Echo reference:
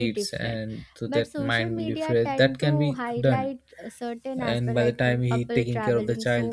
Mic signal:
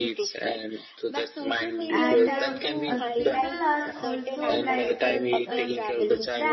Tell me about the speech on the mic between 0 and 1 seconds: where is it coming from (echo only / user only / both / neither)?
echo only